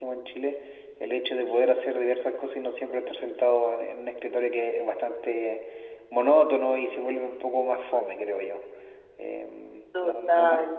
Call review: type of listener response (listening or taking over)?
listening